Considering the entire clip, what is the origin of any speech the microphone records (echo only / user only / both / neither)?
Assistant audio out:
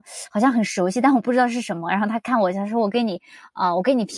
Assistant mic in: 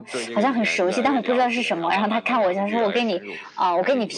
both